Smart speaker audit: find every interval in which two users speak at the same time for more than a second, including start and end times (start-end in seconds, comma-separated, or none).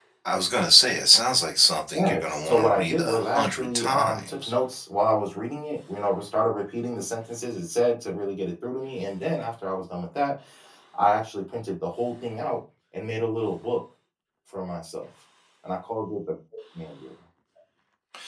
2.0-4.5